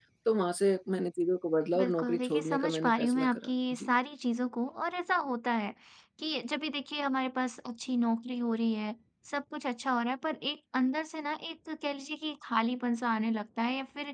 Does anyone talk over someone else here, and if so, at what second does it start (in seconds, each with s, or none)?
1.7 s